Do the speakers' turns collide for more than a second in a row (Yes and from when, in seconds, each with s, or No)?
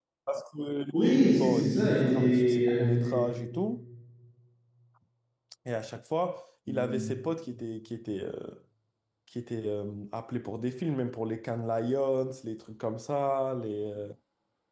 Yes, from 0.9 s